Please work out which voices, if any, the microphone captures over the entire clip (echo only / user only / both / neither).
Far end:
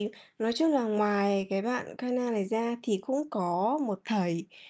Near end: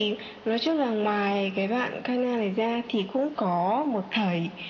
echo only